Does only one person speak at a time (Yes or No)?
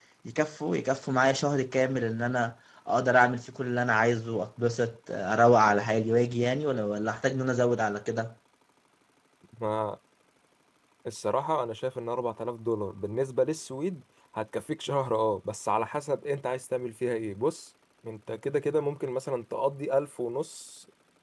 Yes